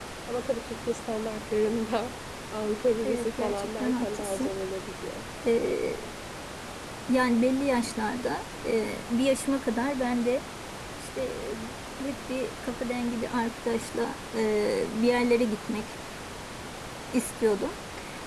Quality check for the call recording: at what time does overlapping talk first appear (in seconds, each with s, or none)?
3.0 s